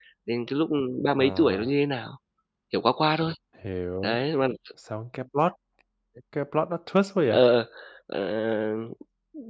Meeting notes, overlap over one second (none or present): none